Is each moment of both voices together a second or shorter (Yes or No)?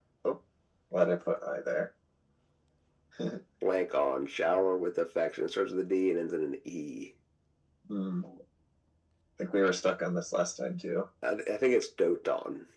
Yes